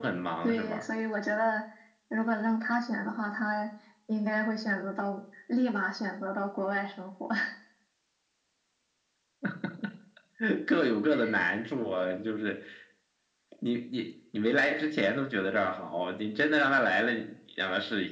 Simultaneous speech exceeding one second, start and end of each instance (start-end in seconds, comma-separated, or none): none